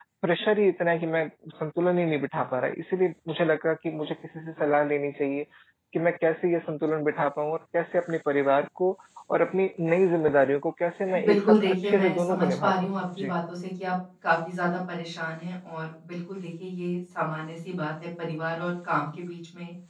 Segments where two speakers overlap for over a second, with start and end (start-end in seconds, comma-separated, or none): 11.2-13.3